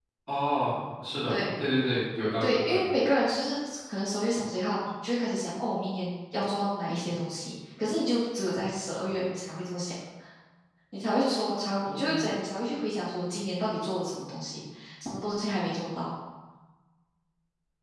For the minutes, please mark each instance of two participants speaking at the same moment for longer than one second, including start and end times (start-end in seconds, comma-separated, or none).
none